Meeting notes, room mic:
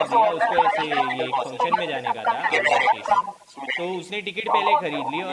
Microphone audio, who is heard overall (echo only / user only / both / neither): both